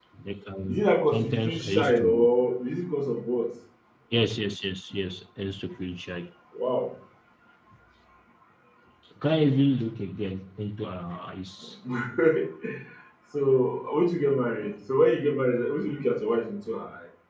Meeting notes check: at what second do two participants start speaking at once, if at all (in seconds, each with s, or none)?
0.7 s